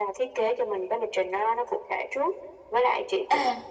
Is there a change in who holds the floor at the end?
No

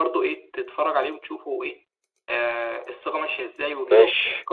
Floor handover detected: No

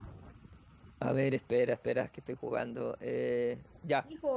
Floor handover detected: Yes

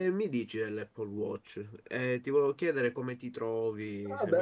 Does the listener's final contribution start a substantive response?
Yes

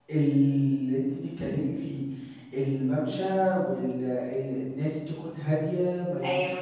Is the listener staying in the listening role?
Yes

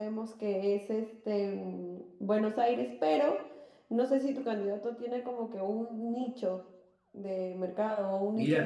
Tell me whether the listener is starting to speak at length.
Yes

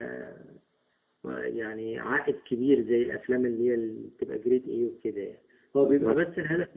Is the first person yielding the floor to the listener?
No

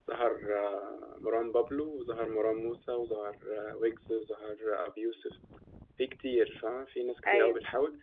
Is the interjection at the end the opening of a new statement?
No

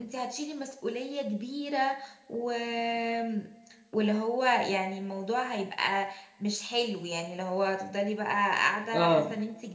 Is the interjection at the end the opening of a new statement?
Yes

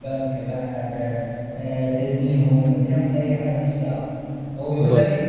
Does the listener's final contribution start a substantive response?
No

